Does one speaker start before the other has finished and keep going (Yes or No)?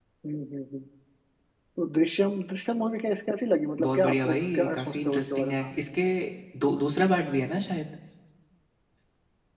Yes